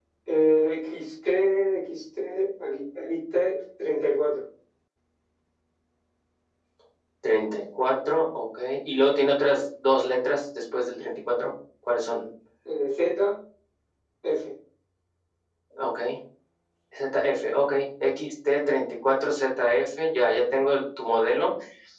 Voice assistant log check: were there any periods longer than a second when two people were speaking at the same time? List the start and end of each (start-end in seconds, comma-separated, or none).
none